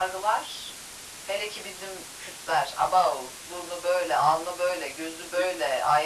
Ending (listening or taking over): listening